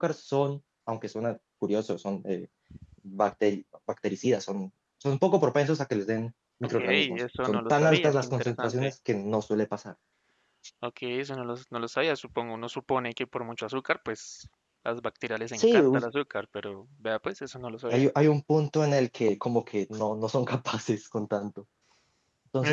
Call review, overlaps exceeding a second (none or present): present